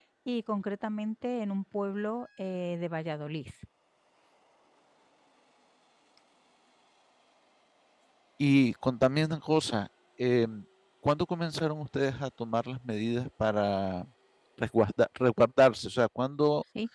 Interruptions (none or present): none